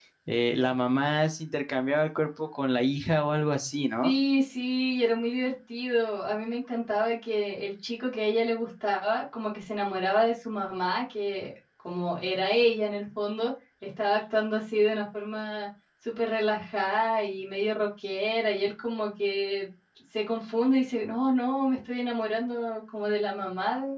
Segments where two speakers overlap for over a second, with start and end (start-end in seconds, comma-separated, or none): none